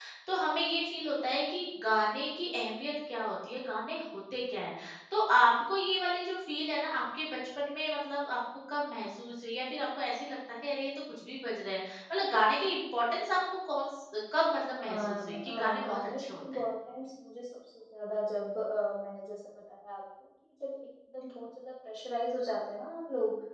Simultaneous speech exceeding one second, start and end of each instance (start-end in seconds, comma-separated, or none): 14.8-16.6